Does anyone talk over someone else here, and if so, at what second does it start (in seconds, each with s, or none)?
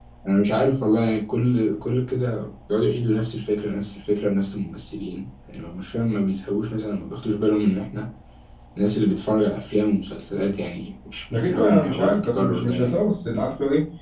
11.3 s